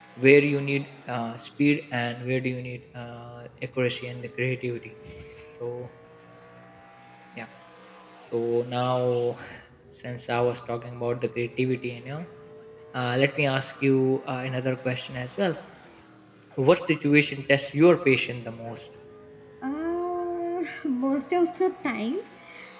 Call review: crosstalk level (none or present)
none